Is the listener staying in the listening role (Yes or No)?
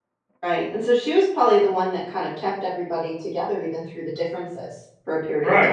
No